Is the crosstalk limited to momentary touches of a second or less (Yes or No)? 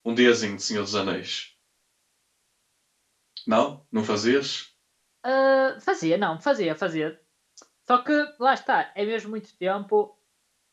Yes